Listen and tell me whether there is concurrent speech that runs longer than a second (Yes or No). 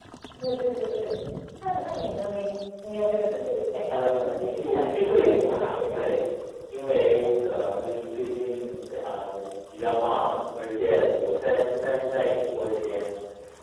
Yes